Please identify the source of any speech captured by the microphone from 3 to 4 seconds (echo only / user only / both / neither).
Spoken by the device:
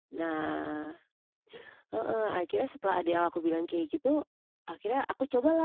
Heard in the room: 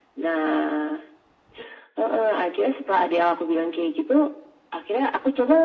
echo only